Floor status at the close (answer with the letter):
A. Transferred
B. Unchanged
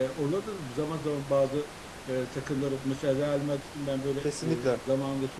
B